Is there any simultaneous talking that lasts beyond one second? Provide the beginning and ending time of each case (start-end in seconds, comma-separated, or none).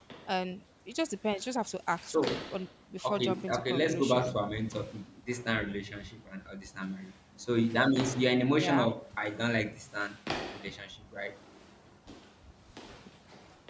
3.0-4.3